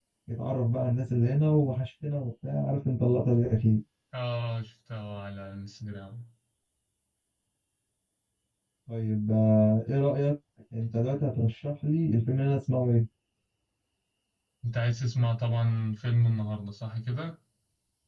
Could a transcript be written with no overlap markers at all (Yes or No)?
Yes